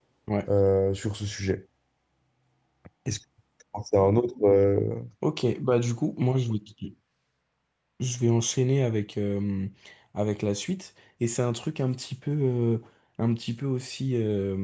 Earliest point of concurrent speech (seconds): none

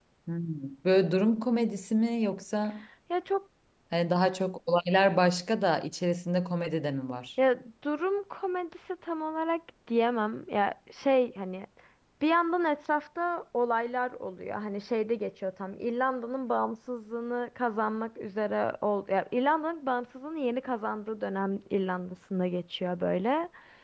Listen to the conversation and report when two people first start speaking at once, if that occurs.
none

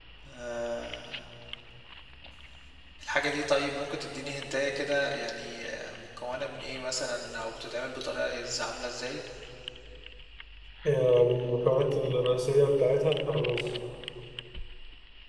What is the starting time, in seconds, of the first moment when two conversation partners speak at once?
none

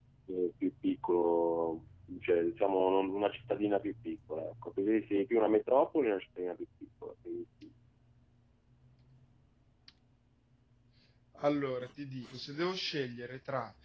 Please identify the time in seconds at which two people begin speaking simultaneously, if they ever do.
none

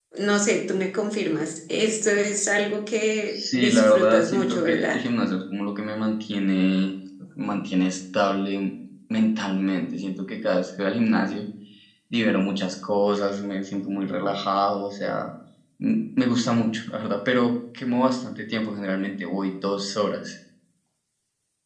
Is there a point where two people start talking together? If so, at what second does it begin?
3 s

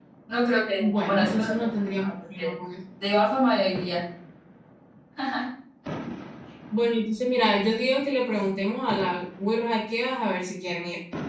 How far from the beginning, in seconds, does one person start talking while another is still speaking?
1 s

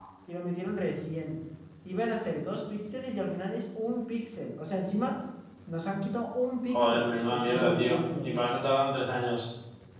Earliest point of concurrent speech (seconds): 7 s

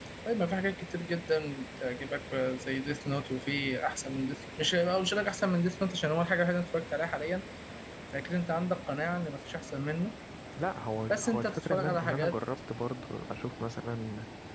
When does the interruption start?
11 s

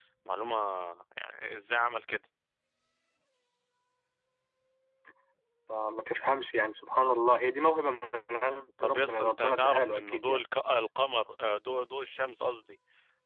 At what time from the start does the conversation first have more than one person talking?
9 s

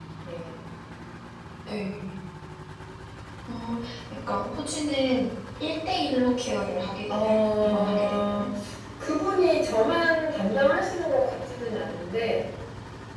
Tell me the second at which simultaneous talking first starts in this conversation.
7 s

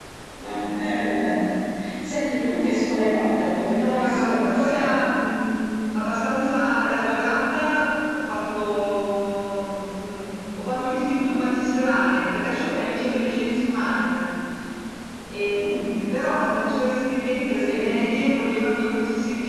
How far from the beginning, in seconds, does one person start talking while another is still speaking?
3 s

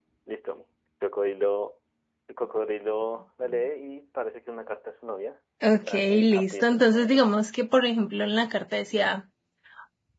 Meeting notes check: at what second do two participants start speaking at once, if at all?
6 s

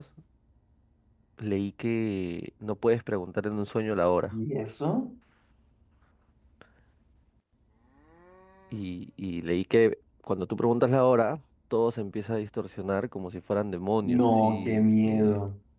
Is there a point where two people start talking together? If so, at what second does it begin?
14 s

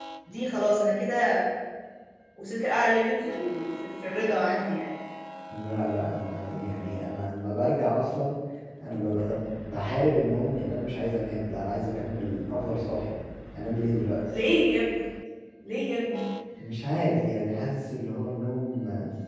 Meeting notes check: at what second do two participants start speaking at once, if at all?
none

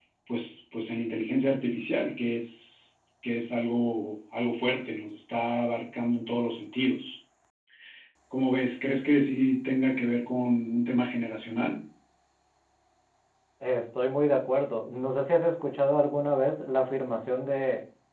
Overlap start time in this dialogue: none

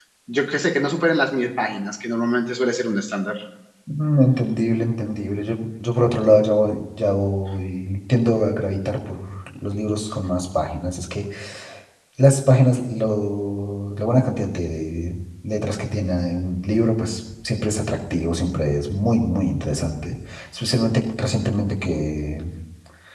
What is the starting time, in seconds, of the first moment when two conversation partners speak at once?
none

